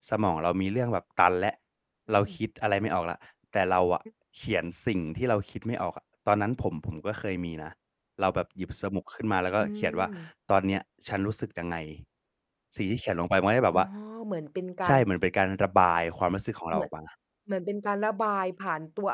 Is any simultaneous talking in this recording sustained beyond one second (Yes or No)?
No